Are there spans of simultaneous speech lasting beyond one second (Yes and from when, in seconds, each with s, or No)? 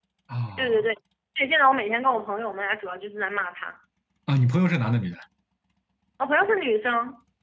No